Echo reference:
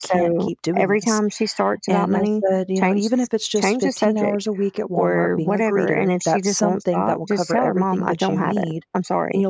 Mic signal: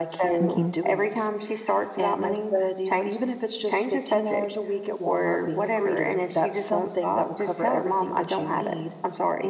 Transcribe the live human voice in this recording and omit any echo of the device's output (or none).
Mhm.